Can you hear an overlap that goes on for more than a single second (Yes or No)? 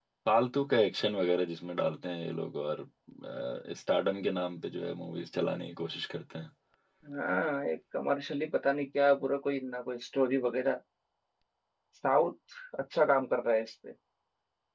No